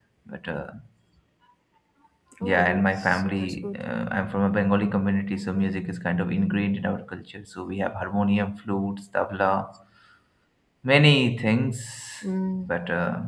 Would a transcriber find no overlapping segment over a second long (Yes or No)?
No